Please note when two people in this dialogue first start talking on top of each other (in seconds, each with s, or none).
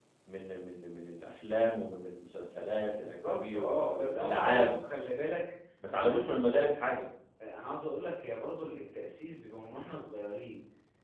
3.0 s